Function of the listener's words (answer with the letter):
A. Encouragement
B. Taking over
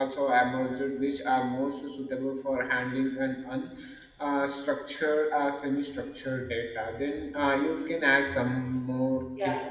B